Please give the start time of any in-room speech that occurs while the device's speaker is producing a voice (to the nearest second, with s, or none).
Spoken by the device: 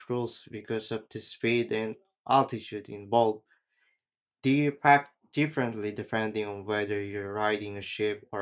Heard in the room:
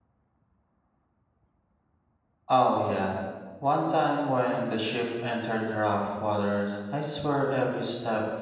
2 s